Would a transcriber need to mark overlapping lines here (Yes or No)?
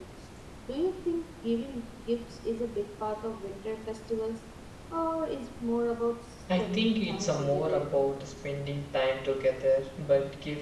Yes